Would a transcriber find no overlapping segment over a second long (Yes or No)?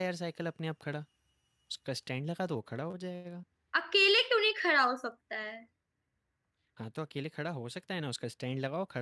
Yes